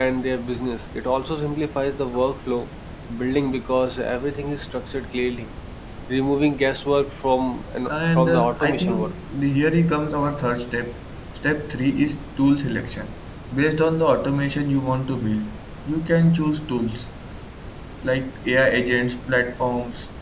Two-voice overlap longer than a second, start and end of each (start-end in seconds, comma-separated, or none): 7.9-9.1